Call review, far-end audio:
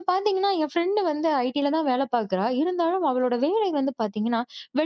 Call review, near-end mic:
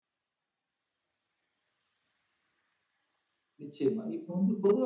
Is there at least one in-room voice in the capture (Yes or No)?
Yes